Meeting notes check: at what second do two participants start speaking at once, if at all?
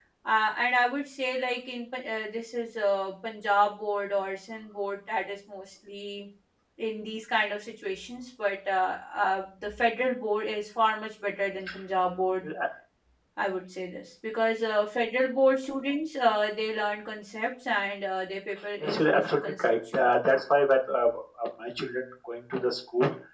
18.8 s

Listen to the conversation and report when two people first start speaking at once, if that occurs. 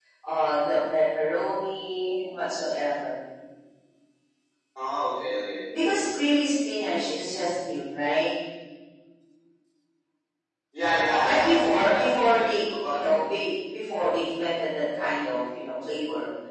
10.8 s

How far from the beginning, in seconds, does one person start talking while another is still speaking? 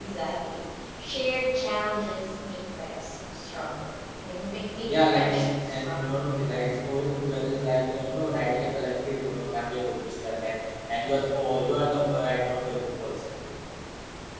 4.9 s

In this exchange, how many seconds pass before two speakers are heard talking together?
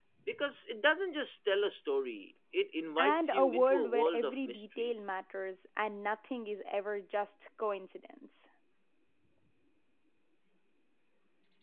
3.0 s

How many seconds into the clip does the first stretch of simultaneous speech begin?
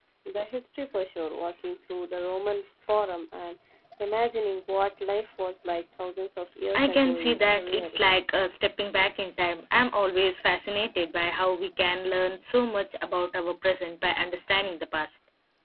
6.7 s

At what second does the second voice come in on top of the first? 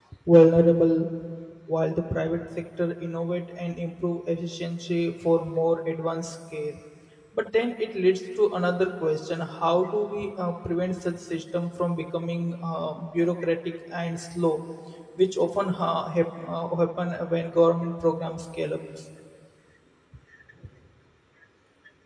none

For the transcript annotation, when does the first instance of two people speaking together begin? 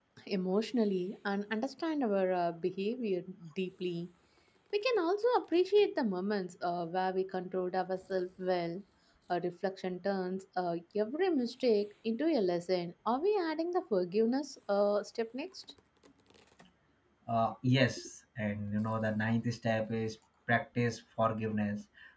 none

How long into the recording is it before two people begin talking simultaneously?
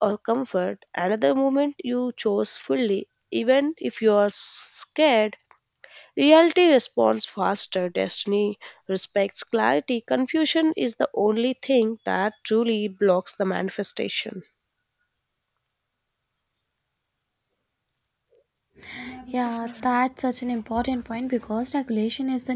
none

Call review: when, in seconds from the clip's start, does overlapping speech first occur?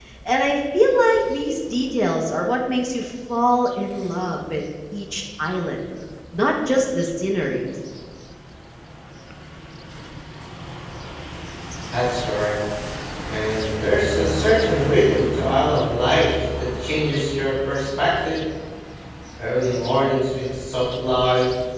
none

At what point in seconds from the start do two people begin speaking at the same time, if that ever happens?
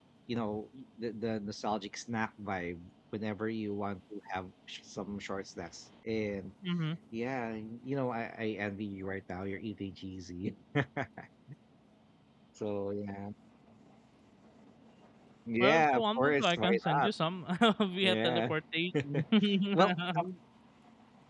15.6 s

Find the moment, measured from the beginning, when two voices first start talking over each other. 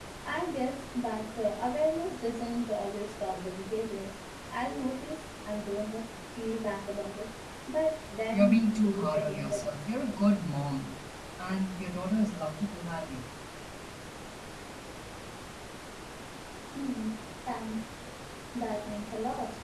8.3 s

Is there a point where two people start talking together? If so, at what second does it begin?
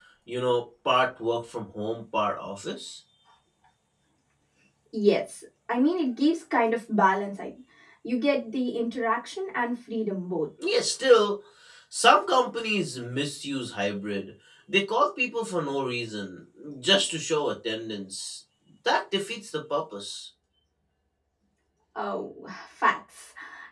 none

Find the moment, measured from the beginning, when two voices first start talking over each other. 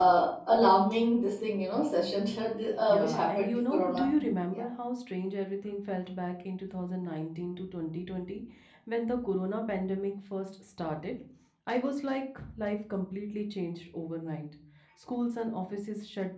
2.9 s

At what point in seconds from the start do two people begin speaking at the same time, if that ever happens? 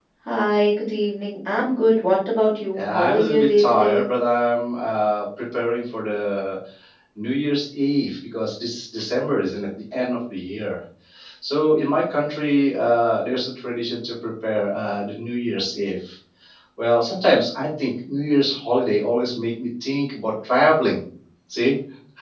2.7 s

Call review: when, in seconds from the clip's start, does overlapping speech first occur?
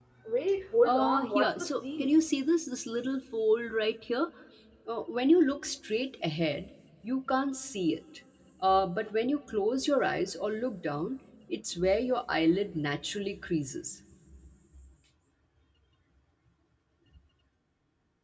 0.8 s

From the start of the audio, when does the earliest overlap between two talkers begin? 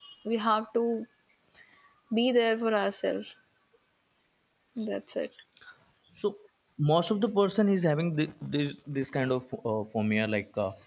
none

